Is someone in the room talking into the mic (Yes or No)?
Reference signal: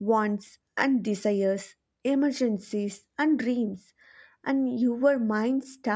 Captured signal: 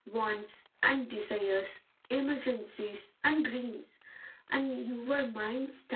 No